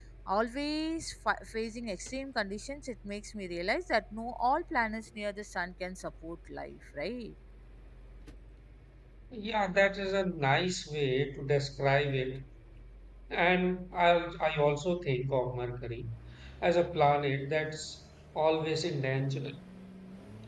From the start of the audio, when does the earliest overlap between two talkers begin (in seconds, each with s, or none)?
none